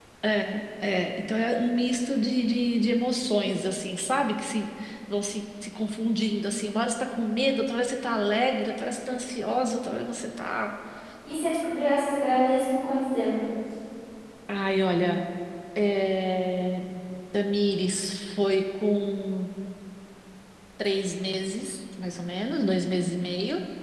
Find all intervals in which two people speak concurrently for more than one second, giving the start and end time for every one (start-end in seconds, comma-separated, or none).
none